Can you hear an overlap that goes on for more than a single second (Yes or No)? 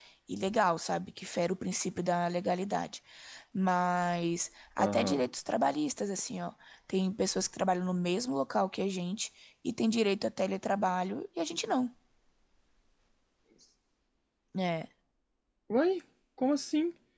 No